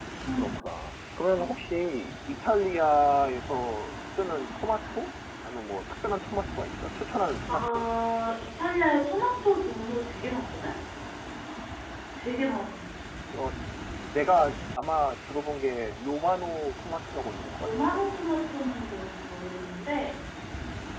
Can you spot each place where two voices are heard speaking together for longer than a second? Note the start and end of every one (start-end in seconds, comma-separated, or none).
none